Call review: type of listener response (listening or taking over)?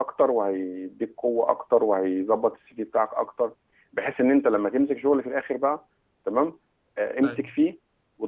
listening